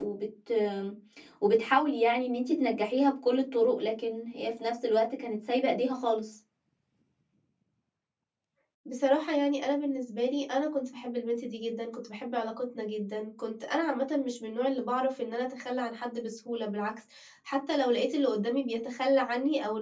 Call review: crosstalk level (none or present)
none